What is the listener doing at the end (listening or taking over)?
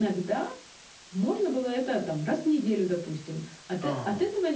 listening